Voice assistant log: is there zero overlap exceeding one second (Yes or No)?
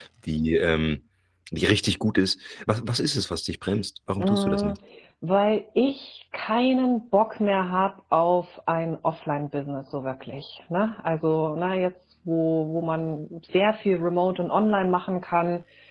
Yes